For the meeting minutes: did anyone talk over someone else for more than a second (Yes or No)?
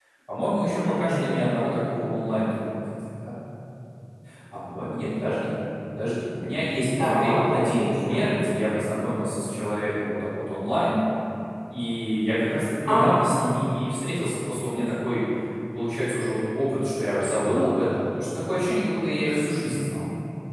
Yes